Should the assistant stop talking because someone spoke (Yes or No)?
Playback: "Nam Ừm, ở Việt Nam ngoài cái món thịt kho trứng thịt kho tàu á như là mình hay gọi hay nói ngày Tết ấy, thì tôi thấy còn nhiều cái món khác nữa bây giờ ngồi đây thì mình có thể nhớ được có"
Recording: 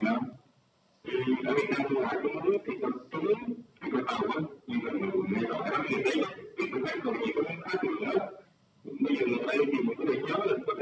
No